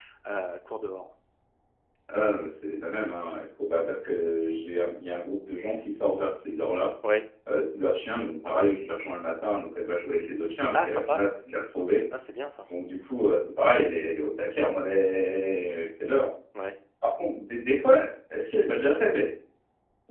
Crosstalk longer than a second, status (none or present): none